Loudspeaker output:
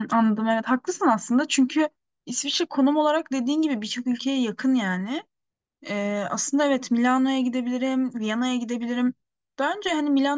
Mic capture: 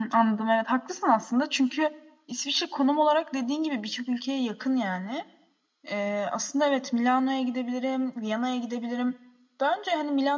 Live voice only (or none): none